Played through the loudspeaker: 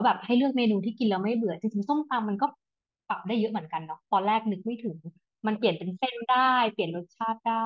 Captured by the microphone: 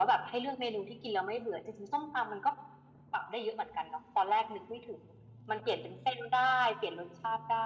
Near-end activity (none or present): none